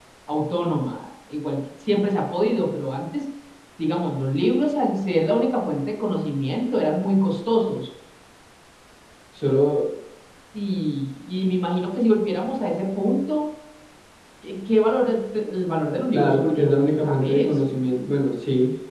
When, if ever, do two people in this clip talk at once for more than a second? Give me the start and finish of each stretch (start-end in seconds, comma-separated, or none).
16.1-17.6